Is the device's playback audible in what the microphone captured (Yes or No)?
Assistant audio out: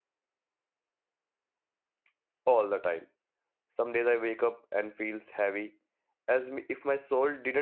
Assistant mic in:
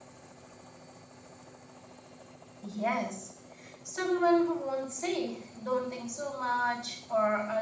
No